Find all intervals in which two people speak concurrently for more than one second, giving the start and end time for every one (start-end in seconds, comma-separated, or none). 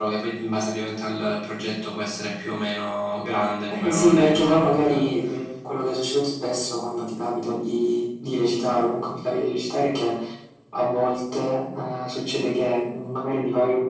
3.7-5.0